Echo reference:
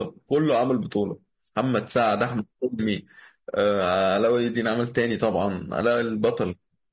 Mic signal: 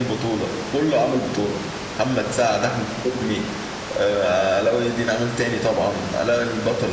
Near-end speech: none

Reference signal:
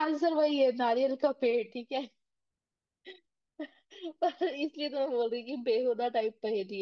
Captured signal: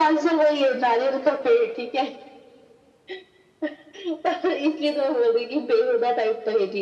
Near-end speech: none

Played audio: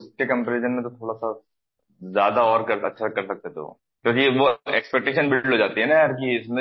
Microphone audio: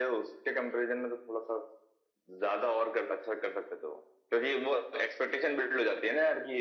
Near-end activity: none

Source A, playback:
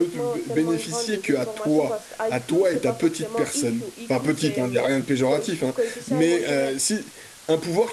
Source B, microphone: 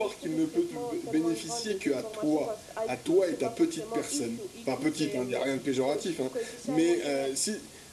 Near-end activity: none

